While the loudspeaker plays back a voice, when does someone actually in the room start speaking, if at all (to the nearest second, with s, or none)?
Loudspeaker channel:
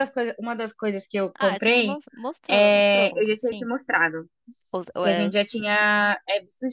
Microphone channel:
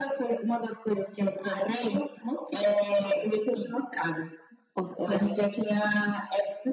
none